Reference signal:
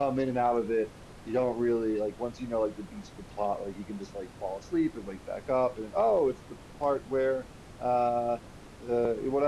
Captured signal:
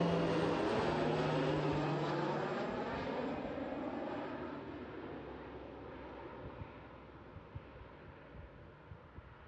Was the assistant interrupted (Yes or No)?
No